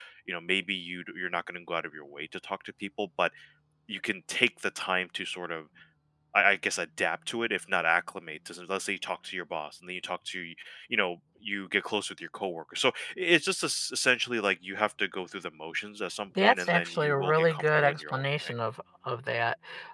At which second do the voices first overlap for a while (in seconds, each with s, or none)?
16.4 s